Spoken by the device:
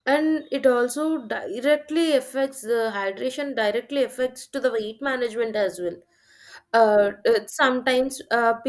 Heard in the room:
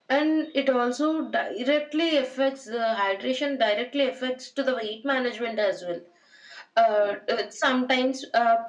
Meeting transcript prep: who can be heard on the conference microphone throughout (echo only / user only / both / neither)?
echo only